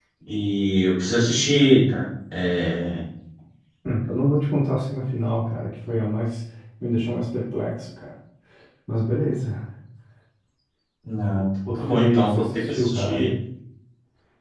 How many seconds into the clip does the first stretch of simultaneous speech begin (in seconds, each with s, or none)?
11.8 s